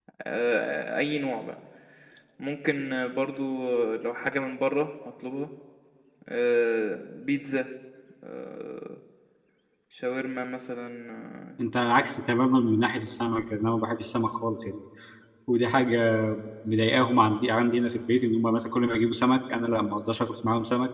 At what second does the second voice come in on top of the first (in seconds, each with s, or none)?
none